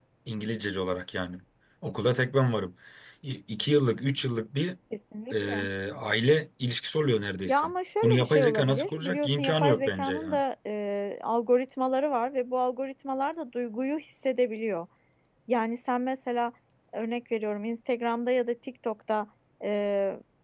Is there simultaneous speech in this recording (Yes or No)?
Yes